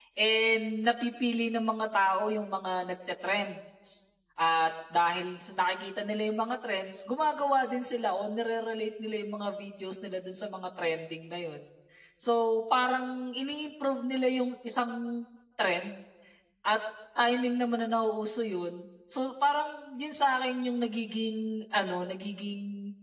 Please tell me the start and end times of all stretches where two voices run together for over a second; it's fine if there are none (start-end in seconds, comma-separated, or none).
none